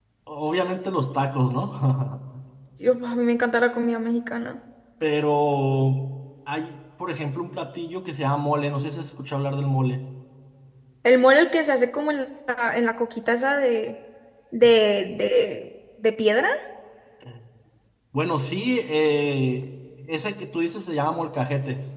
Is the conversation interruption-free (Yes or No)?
Yes